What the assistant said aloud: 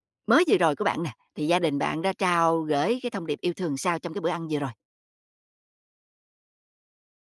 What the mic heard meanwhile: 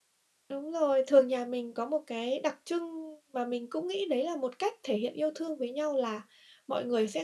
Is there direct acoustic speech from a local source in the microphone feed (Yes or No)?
Yes